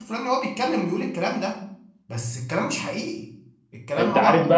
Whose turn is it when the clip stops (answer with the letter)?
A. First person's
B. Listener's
B